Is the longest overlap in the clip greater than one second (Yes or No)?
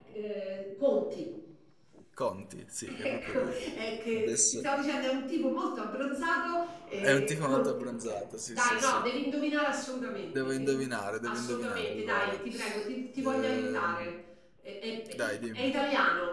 Yes